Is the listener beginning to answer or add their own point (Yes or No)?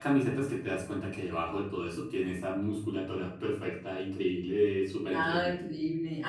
Yes